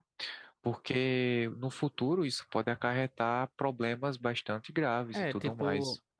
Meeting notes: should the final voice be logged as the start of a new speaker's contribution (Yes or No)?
Yes